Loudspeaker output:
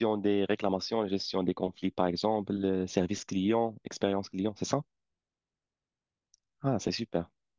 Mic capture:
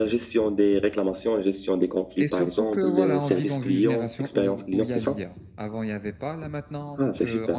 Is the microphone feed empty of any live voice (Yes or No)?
No